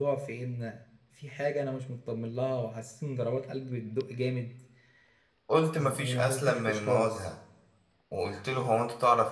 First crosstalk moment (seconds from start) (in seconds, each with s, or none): 5.8 s